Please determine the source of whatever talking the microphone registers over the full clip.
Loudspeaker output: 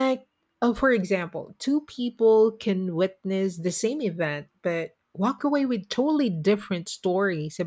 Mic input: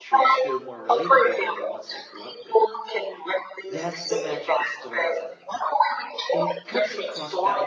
both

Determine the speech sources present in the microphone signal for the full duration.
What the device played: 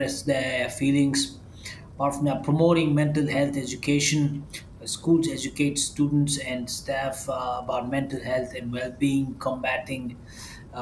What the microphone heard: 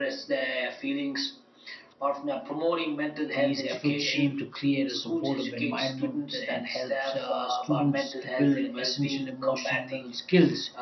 both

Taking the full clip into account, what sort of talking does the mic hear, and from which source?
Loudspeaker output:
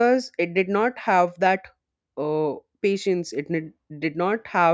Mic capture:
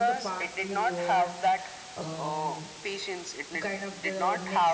both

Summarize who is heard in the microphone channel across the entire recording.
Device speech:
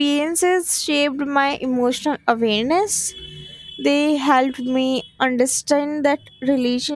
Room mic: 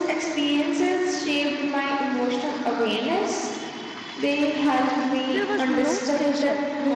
both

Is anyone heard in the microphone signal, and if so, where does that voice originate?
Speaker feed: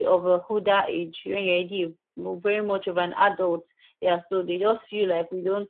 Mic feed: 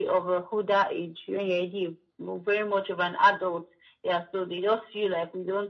echo only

